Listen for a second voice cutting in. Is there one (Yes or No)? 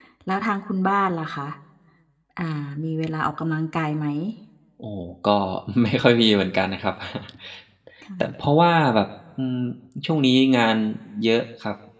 No